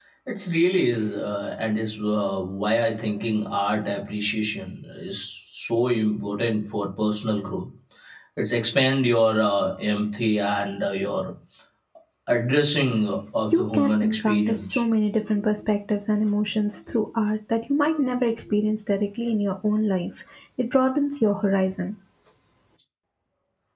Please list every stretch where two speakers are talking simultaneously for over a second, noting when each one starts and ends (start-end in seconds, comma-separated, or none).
13.5-14.7